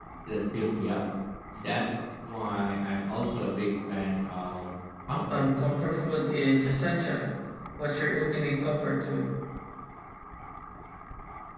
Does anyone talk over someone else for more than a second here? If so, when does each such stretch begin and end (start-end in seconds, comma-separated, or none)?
none